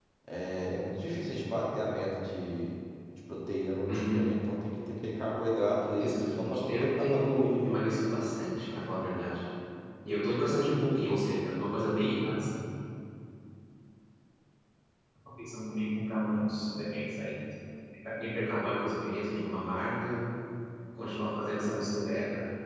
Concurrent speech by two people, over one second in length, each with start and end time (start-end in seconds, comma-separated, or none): 6.0-7.8